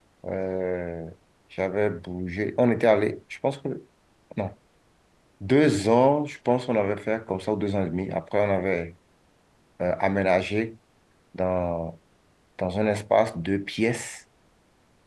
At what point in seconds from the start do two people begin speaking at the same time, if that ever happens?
none

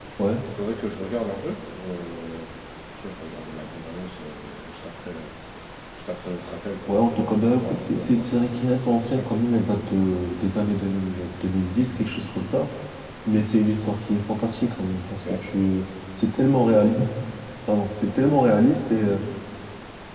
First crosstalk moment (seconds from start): 7 s

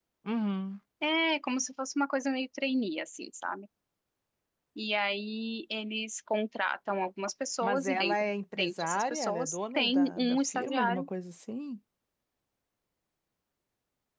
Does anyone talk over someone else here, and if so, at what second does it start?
8 s

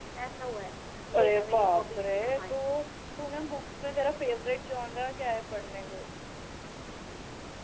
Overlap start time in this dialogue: 1 s

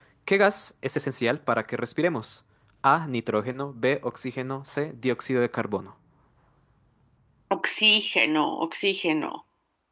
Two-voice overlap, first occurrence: none

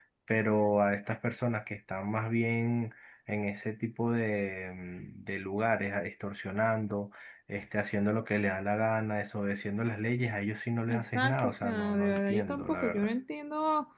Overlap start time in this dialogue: 11 s

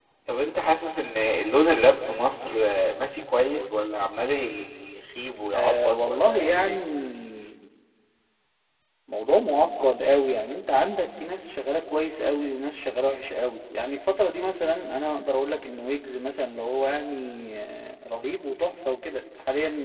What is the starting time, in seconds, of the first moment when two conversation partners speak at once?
6 s

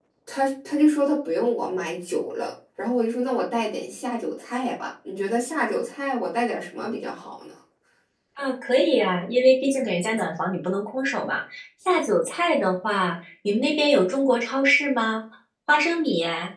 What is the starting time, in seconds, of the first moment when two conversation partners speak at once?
none

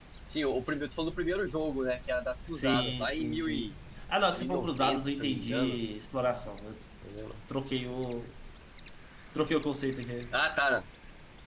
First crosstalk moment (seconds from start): 2 s

